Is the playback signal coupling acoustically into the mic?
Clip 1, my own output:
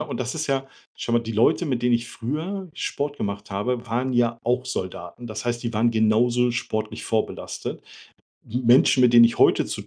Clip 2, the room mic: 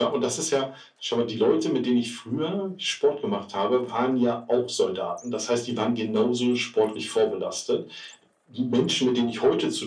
Yes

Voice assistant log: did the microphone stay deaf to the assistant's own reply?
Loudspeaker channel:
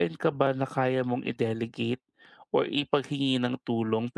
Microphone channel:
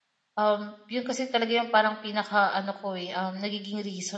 Yes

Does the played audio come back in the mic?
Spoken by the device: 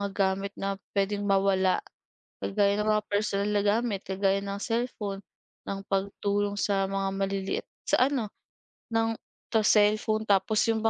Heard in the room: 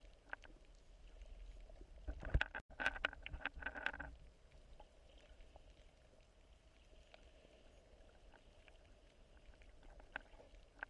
No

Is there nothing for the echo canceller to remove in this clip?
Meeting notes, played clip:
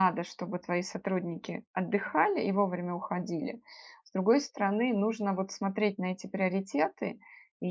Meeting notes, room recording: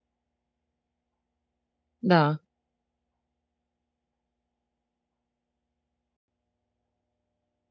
Yes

